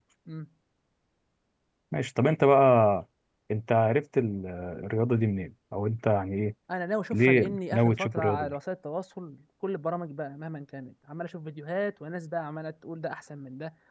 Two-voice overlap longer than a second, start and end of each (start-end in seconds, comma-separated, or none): 7.1-8.6